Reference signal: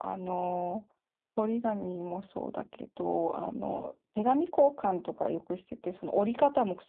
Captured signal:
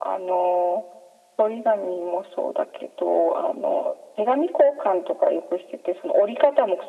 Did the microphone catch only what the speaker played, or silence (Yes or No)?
Yes